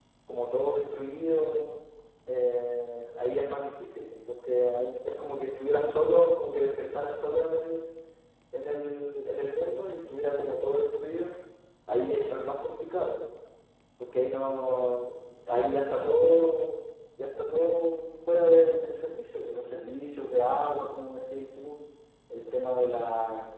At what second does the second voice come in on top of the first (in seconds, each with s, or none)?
none